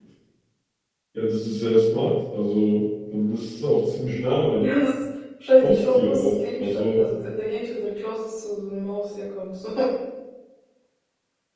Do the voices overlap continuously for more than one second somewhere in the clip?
Yes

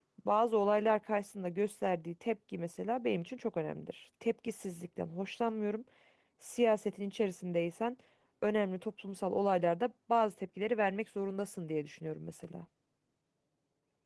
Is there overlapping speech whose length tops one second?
No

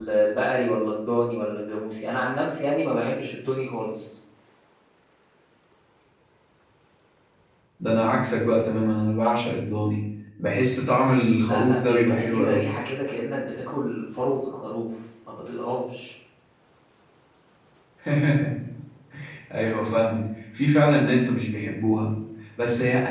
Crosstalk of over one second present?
Yes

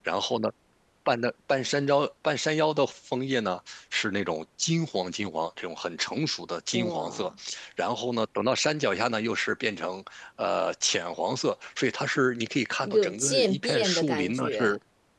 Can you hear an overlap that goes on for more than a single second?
Yes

